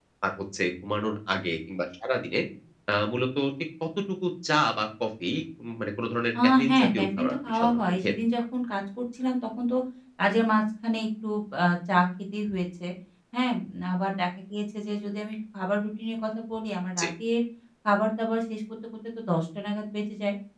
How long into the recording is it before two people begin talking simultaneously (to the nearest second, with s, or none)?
6 s